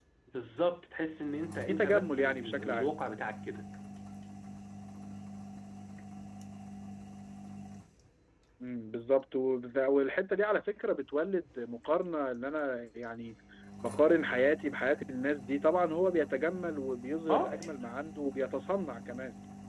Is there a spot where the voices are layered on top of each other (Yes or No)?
Yes